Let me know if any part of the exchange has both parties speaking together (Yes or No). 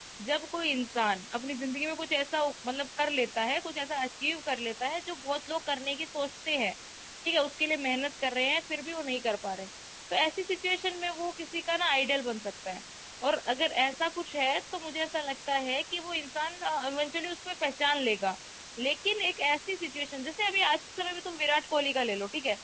No